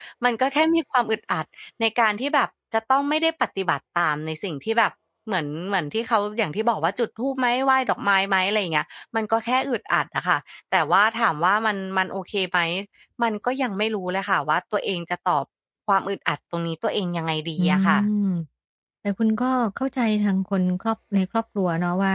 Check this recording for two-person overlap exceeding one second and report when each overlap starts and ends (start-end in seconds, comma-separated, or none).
none